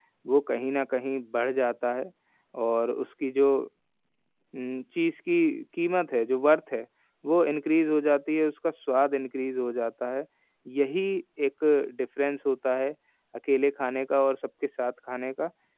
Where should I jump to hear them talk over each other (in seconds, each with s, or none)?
none